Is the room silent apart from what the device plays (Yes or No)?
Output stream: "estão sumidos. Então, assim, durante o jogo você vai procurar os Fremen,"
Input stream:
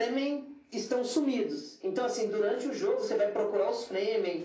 Yes